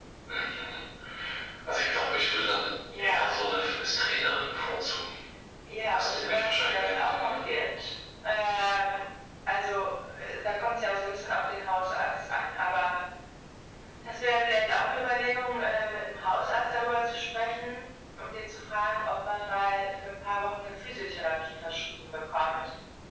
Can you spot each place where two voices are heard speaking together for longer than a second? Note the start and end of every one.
5.9-7.5

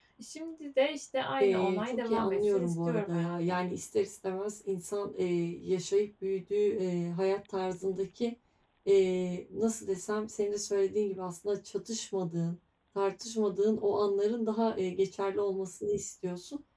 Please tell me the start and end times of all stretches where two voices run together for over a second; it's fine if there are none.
1.4-3.6

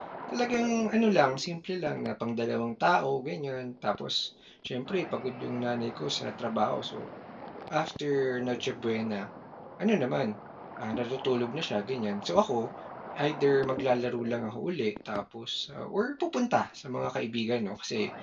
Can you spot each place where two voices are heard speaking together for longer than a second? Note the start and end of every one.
none

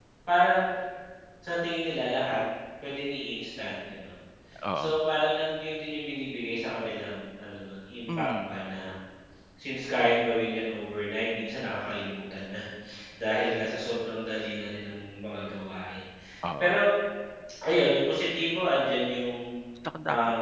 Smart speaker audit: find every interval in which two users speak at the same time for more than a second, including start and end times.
none

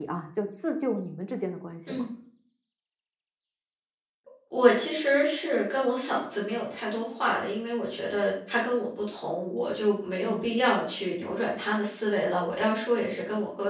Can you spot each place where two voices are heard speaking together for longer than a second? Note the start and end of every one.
none

